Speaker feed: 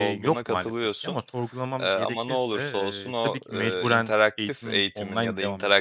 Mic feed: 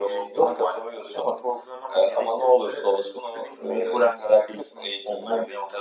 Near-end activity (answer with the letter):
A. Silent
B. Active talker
A